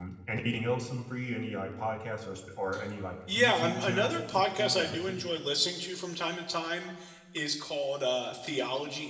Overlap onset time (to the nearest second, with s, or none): 3 s